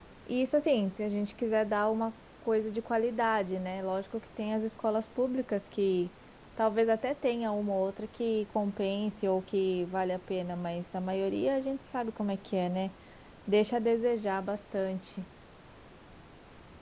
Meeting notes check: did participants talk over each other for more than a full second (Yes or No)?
No